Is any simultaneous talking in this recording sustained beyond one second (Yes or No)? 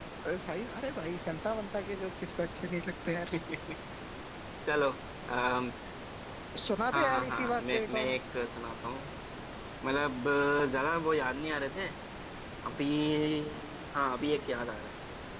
Yes